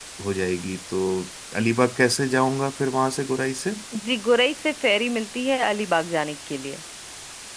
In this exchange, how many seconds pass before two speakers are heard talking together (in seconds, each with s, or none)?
none